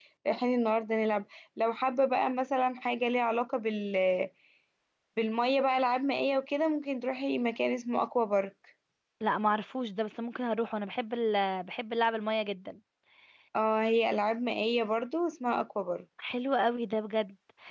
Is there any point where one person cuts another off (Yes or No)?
No